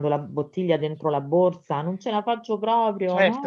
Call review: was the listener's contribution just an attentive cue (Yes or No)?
No